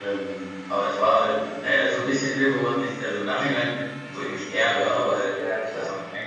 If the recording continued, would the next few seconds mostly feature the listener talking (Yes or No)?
No